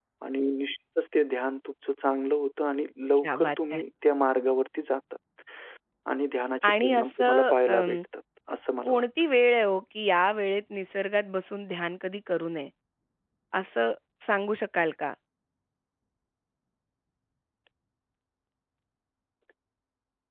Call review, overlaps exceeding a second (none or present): present